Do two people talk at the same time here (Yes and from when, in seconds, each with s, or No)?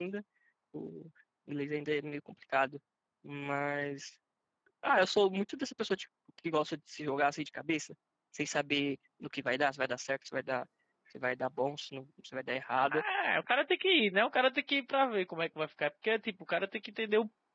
No